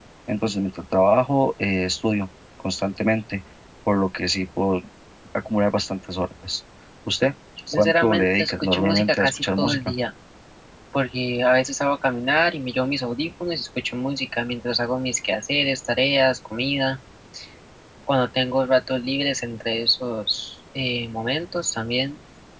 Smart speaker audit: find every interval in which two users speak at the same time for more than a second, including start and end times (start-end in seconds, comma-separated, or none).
7.7-9.8